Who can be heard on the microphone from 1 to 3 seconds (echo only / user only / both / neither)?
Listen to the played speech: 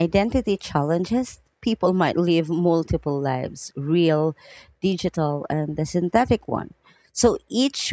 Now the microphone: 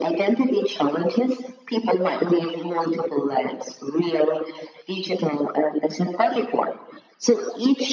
echo only